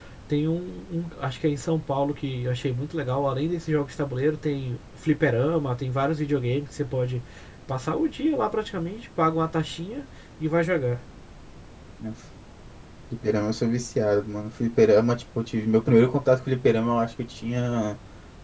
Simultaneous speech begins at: none

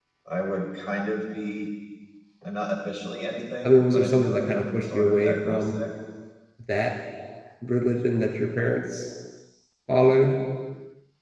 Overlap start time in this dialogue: 3.6 s

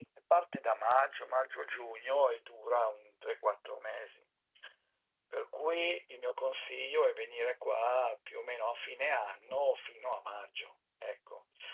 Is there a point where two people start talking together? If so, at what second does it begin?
none

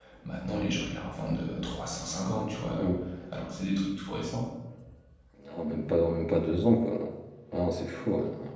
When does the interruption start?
none

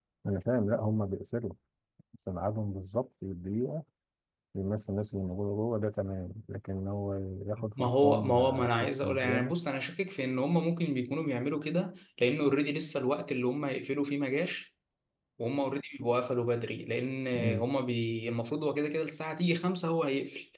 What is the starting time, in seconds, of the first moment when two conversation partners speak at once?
7.8 s

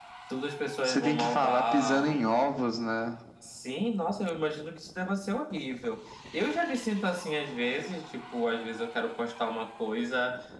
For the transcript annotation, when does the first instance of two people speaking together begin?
0.8 s

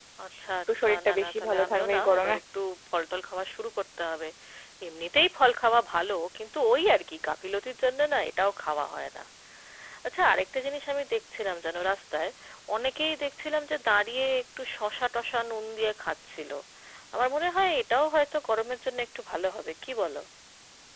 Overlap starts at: 0.8 s

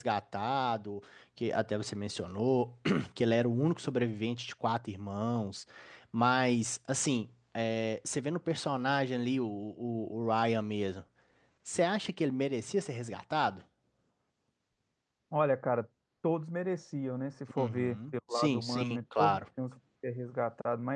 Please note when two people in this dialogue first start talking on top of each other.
17.6 s

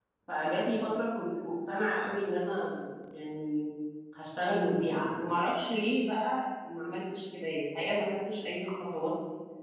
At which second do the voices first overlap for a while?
none

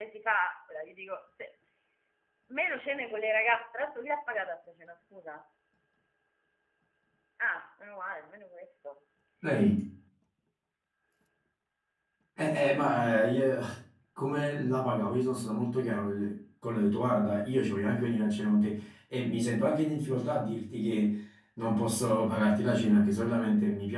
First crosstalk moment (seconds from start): none

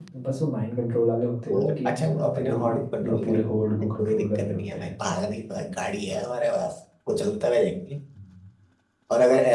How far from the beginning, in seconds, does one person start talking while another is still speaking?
1.5 s

